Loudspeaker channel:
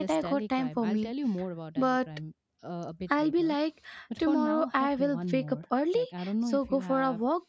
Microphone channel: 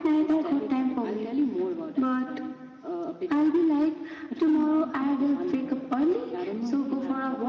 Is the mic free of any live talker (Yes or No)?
Yes